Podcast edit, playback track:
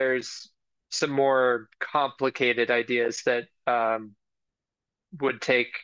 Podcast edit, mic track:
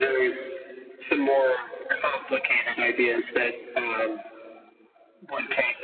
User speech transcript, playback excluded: none

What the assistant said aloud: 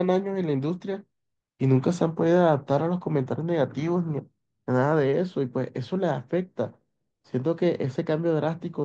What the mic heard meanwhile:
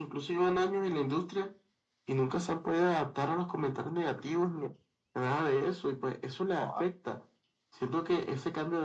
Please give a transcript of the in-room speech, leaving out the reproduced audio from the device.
joda,

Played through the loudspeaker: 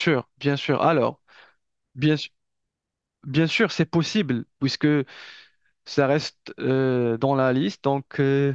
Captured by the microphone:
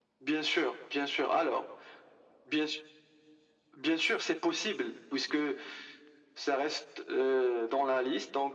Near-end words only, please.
none

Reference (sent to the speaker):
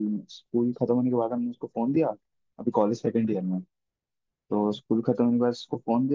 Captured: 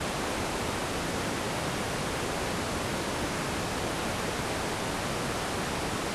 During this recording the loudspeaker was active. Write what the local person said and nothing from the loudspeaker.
none

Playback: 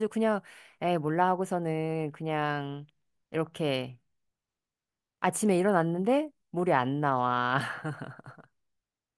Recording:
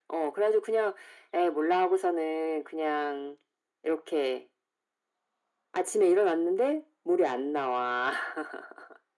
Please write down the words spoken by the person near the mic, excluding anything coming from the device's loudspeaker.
none

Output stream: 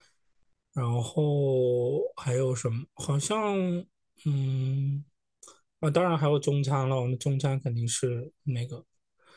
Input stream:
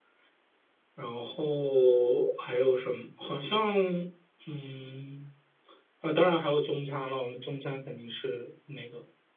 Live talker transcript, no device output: none

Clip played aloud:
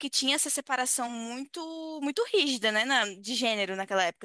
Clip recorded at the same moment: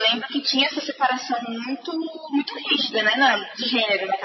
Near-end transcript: none

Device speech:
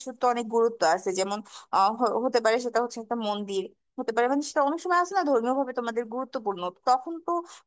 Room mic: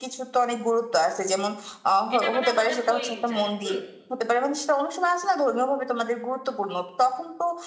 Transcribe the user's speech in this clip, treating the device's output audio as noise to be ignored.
এটা মানে আমাদের হয়েই যায় হুম

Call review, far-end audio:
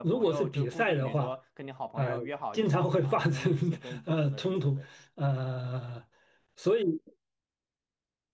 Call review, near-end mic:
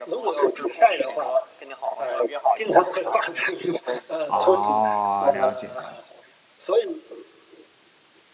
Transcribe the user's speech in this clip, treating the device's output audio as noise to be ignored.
哦，了解了解。

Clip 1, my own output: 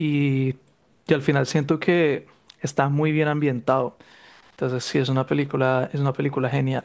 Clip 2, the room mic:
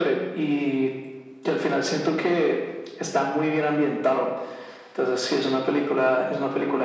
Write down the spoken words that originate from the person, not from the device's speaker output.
none

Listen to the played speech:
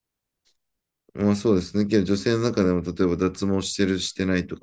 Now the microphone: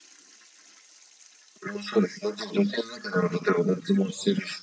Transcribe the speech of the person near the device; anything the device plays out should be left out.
none

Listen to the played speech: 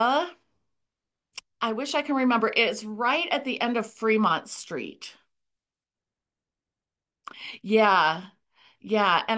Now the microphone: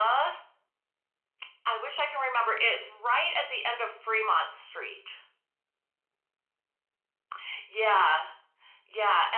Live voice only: none

